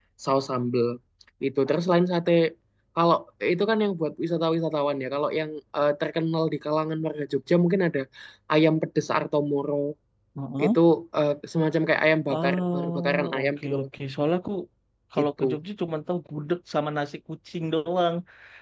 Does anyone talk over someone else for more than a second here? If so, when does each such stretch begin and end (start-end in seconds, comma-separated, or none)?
12.3-13.9